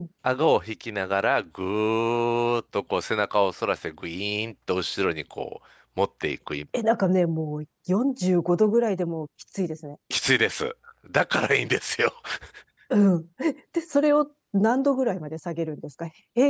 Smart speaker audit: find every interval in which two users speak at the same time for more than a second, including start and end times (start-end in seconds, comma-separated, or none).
none